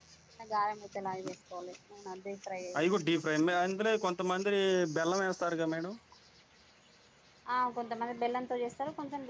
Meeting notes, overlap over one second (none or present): none